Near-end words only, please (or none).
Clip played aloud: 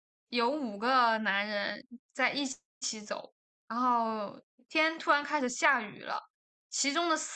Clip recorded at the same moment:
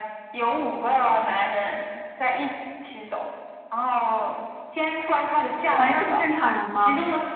朋友是正常人吗？